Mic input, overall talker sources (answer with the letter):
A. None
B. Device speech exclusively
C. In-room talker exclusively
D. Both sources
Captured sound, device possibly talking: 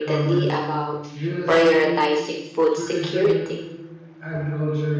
D